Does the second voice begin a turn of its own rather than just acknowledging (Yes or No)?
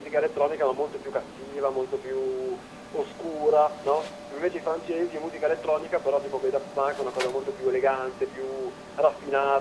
Yes